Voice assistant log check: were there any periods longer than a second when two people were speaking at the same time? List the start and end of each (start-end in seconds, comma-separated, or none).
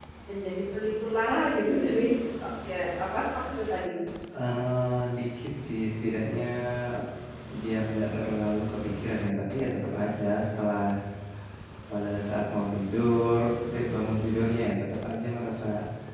none